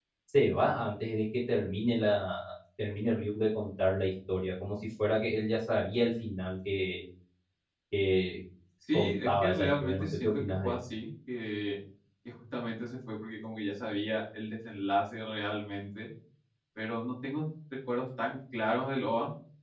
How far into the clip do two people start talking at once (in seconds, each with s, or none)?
8.9 s